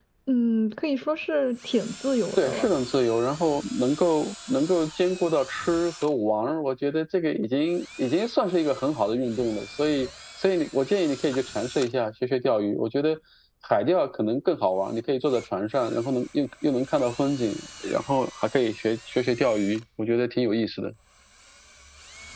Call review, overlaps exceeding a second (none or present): none